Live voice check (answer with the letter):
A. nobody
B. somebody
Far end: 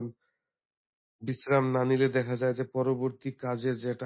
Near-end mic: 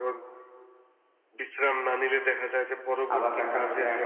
B